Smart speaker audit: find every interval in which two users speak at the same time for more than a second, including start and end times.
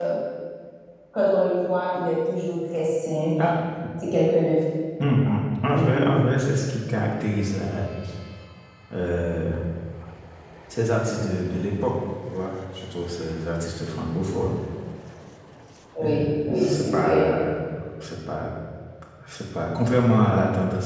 16.0-17.3

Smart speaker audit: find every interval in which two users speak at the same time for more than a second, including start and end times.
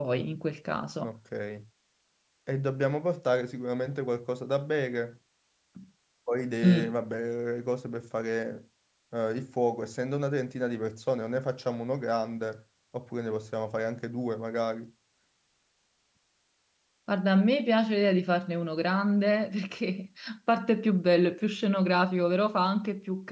none

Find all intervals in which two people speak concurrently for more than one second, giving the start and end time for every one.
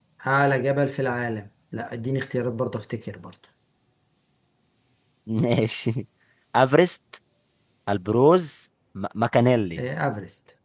none

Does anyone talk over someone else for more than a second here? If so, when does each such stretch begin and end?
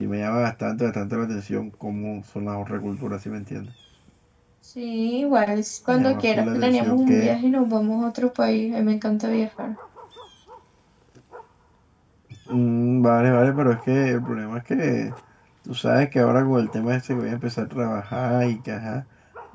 5.9-7.3

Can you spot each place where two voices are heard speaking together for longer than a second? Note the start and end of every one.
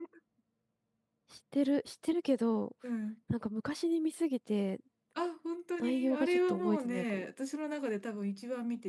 5.8-7.3

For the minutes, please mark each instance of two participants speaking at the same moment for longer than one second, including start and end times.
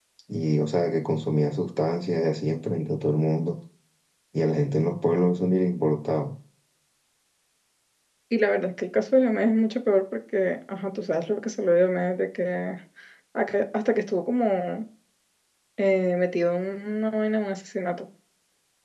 none

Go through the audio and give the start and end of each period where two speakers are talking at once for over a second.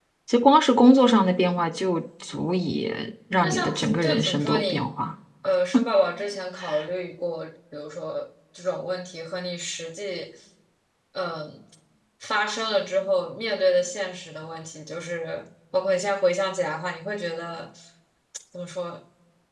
3.4-4.9

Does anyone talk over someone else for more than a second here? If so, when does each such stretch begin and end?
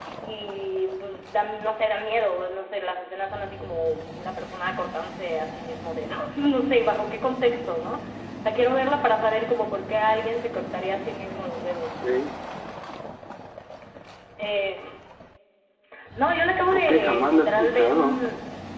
16.7-18.2

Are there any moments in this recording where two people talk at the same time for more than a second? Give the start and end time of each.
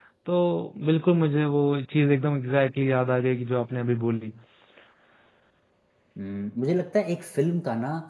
none

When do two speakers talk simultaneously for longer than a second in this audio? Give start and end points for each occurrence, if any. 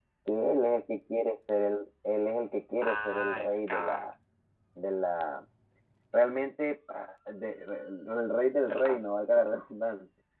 2.8-4.1

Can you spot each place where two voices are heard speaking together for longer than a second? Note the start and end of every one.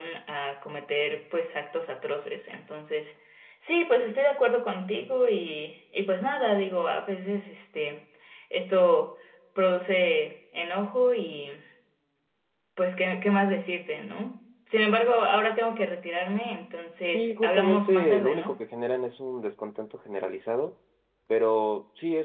17.1-18.6

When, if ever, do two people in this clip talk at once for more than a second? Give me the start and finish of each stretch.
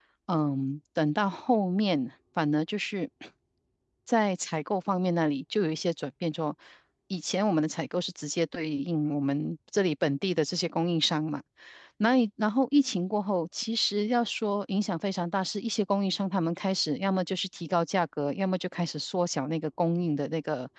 none

